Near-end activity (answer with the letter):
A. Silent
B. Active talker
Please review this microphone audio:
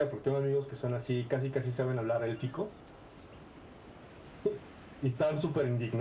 A